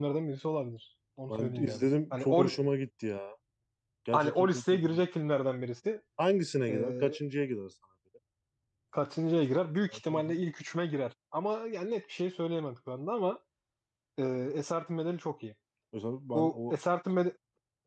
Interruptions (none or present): present